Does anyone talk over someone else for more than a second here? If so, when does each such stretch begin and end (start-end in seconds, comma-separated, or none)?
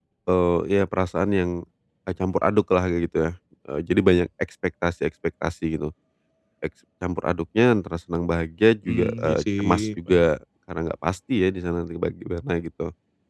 8.8-10.3